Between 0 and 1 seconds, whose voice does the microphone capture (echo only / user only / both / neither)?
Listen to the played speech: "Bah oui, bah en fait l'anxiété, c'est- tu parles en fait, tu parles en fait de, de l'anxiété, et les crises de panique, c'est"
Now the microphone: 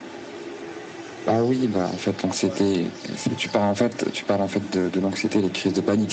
neither